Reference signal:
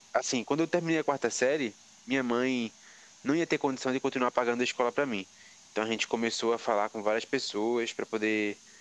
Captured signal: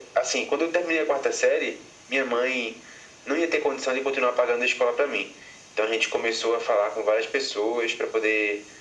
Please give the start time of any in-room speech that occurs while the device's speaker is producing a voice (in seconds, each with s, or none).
none